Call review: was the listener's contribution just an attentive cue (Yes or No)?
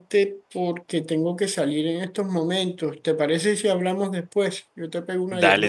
No